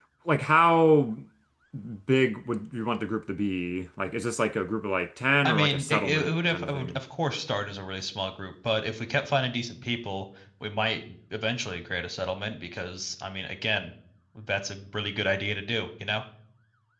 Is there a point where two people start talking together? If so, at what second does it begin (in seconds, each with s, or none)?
5.4 s